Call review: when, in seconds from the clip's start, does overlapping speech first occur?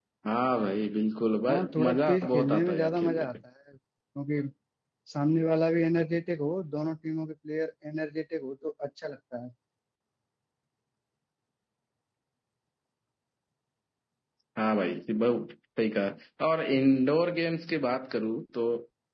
1.5 s

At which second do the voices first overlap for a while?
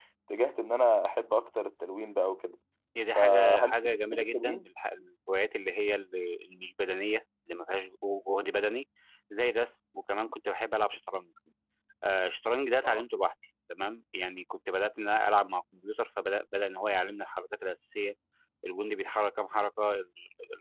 3.2 s

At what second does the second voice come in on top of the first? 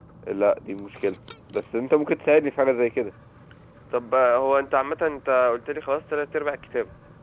none

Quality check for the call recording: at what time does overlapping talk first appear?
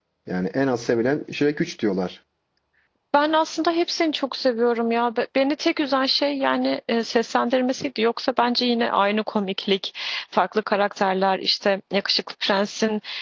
none

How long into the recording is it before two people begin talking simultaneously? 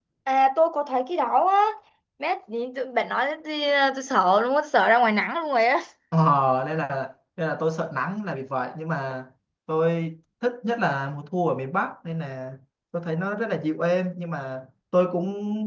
none

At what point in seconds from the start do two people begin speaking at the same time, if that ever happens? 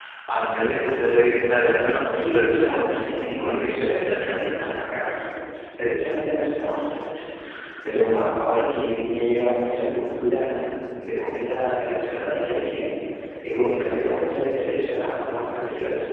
1.8 s

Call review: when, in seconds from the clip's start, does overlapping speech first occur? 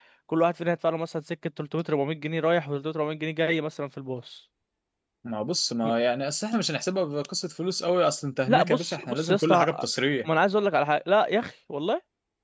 8.5 s

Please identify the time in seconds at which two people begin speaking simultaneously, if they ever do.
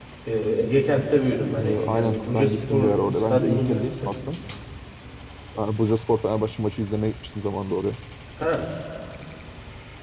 1.6 s

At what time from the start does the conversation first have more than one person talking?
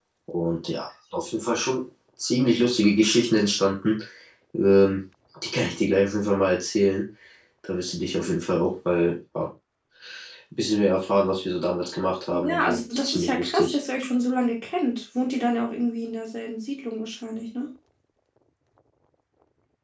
12.3 s

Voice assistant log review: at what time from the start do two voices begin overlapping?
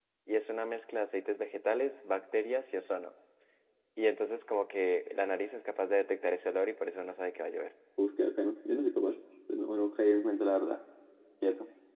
none

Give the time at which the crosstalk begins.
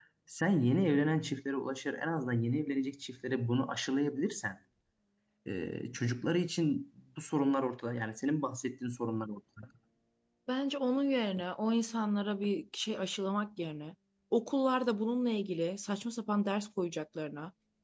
none

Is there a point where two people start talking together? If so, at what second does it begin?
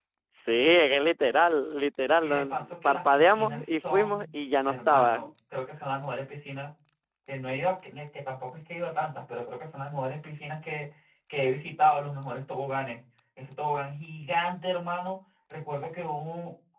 2.2 s

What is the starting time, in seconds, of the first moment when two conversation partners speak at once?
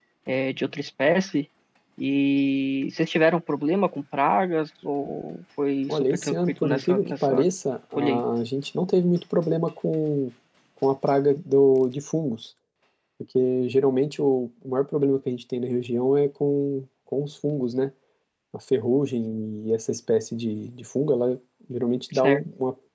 5.9 s

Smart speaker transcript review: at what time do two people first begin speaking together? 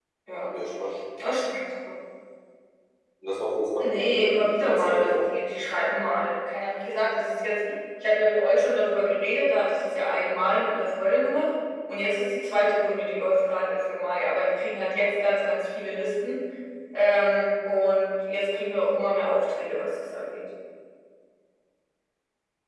3.8 s

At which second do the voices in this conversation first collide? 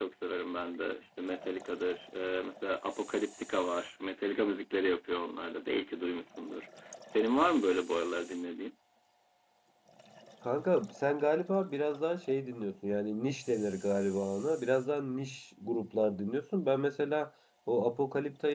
none

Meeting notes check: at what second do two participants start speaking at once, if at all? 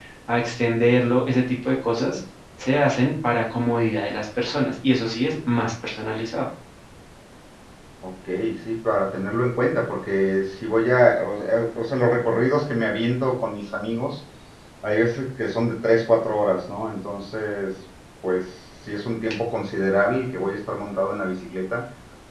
none

